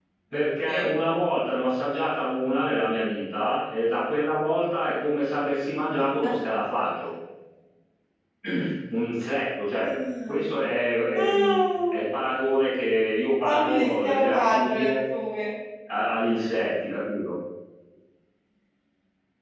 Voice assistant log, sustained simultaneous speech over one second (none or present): present